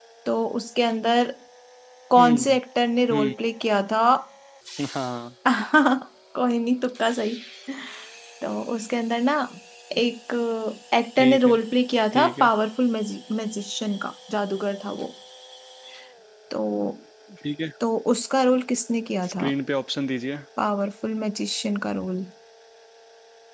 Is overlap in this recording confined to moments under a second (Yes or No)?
Yes